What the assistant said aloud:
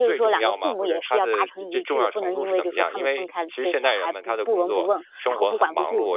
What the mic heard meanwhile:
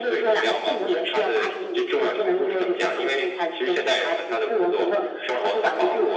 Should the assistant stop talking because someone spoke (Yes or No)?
No